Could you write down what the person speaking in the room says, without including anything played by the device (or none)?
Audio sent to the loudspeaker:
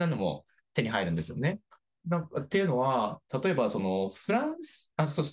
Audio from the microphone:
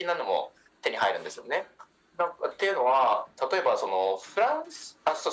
none